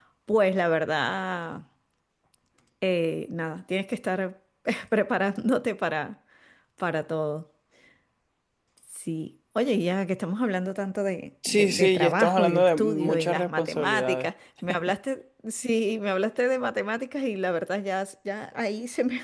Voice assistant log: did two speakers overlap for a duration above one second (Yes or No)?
Yes